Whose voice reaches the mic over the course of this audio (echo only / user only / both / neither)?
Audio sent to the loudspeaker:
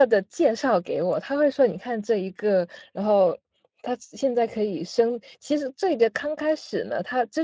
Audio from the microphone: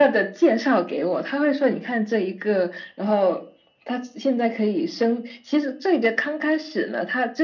echo only